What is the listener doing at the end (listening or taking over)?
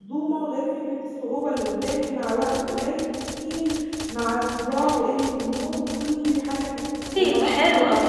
taking over